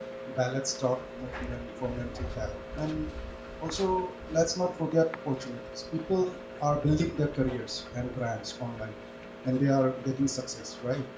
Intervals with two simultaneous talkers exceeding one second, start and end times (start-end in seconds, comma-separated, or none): none